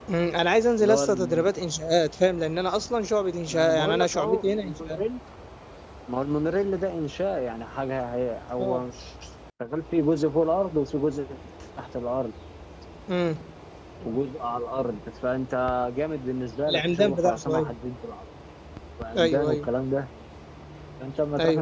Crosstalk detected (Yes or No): Yes